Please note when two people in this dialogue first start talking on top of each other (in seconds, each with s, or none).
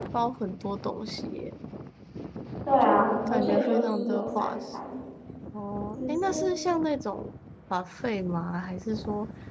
2.8 s